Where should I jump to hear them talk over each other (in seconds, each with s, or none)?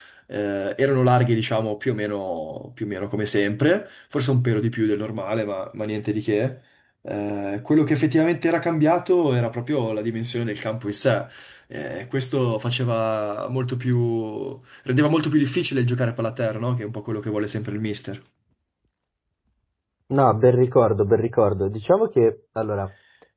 none